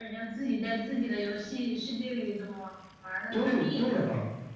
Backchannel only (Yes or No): No